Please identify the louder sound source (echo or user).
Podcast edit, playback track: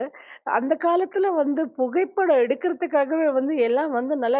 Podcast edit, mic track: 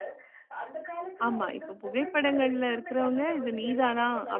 user